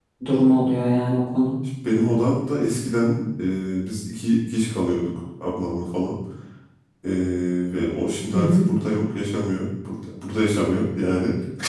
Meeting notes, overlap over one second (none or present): none